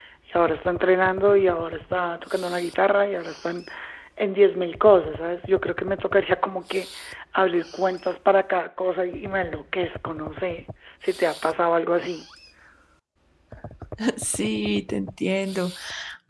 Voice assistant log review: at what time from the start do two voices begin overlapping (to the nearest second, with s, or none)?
none